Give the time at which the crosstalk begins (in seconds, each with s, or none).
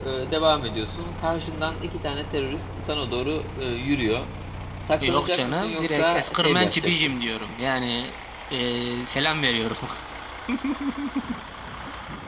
5.0 s